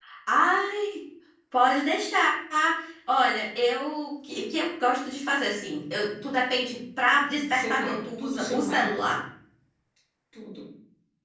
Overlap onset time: 7.4 s

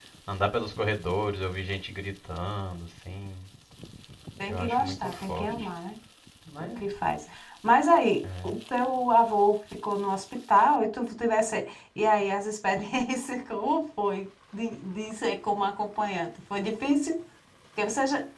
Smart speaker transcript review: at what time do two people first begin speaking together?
4.5 s

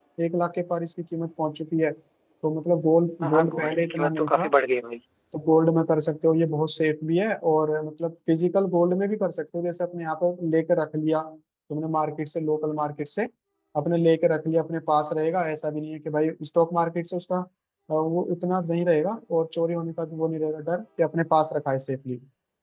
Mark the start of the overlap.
3.2 s

